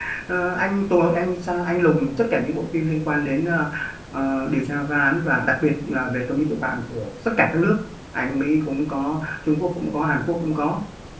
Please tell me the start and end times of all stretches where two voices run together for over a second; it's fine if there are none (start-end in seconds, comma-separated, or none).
none